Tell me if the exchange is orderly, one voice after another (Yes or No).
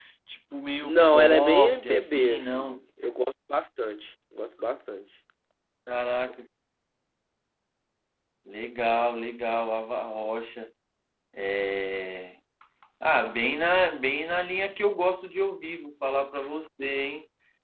No